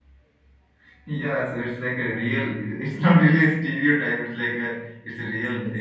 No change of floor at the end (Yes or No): No